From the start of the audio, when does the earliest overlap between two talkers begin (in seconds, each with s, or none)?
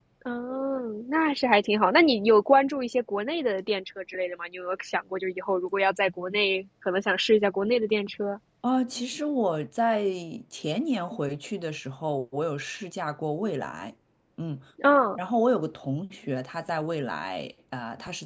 none